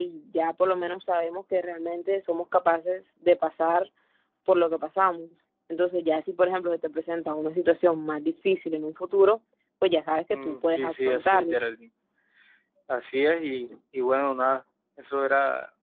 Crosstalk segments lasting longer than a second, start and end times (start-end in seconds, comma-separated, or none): 10.3-11.6